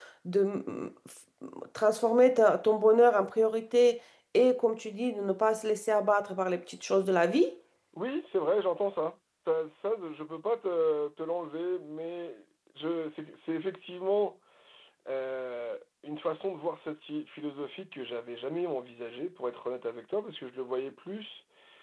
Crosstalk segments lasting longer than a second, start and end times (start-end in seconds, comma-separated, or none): none